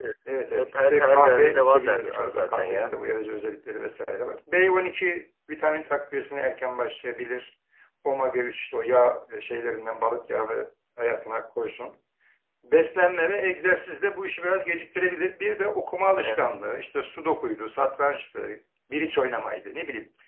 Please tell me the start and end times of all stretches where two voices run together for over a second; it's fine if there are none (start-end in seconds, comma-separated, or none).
0.5-3.0